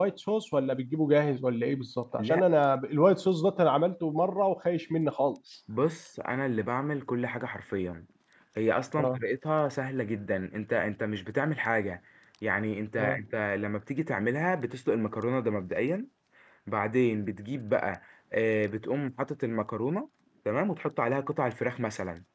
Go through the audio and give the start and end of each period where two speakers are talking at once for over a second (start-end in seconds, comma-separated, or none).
none